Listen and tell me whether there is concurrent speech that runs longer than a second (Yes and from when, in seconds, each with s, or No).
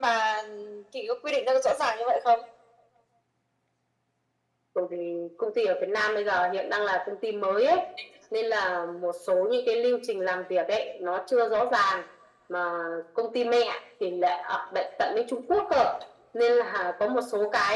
No